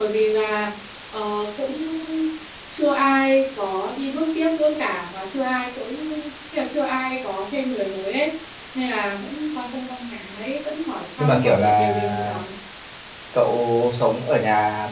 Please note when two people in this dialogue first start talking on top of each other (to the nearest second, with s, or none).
11 s